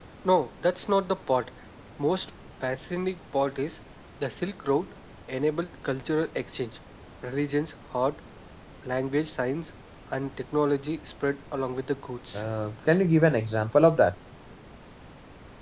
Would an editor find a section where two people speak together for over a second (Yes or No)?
No